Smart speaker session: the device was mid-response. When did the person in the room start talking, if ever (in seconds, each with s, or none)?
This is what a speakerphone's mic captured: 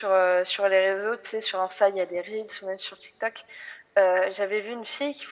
none